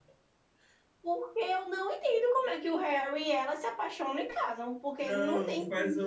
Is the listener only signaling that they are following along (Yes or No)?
No